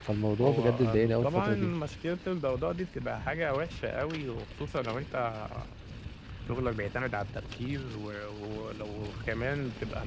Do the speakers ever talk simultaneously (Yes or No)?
Yes